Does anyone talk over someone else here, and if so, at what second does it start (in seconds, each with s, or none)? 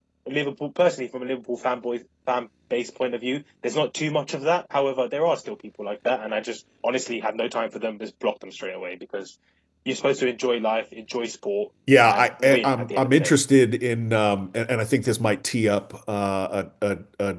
11.9 s